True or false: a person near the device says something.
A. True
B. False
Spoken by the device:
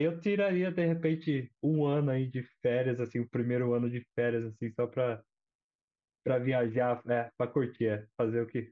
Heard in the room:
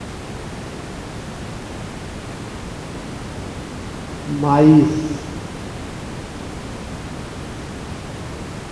A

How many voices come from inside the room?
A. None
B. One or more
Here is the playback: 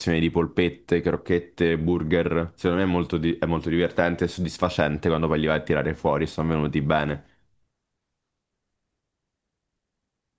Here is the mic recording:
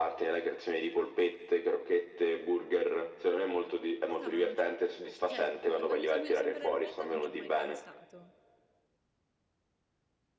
B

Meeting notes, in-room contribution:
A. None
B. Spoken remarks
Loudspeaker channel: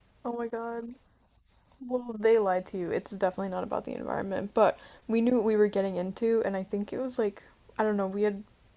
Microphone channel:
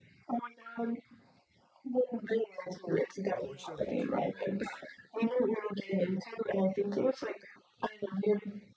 B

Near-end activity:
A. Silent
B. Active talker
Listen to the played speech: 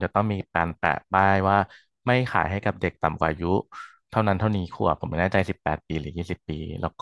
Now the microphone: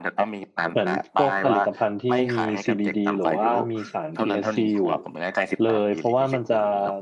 B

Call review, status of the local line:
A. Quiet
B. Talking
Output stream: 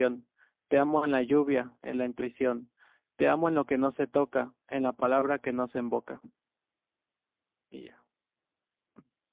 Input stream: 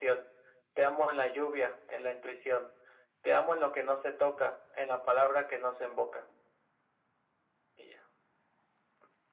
A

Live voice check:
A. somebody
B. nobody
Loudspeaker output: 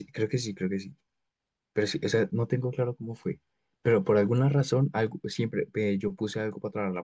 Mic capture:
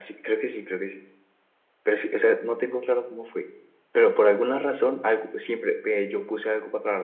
B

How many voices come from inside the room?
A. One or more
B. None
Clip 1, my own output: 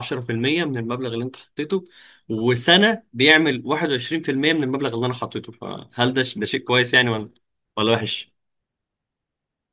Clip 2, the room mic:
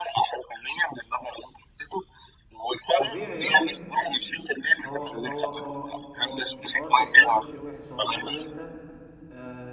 A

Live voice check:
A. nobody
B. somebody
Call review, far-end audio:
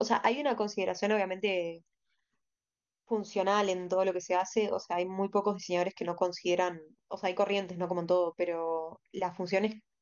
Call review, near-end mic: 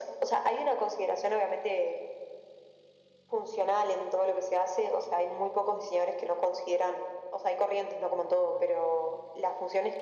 A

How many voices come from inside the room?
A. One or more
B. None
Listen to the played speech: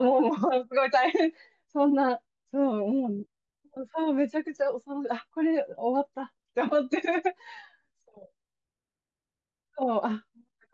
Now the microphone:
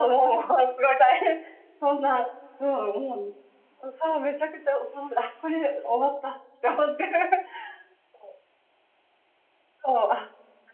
B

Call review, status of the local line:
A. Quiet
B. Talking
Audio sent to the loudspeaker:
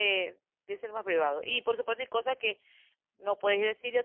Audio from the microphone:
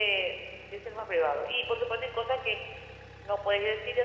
A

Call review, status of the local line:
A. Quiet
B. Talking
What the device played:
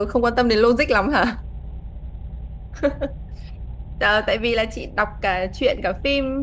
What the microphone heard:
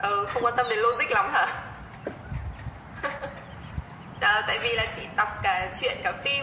A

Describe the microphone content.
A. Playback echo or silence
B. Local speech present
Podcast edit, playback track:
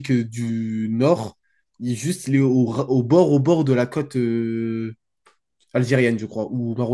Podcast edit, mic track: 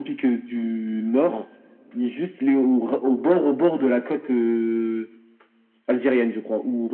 A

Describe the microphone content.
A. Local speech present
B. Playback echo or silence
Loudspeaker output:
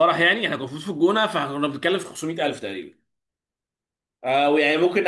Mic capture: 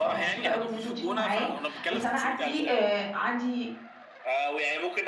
A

